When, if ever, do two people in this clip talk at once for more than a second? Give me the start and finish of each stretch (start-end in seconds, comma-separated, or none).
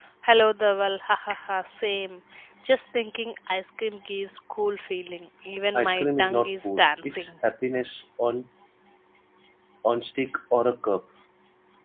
5.8-7.3